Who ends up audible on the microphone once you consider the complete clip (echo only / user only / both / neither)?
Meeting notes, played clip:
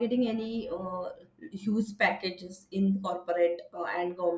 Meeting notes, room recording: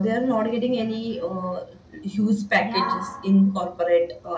both